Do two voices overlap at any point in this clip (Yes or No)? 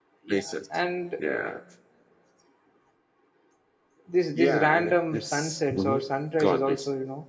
Yes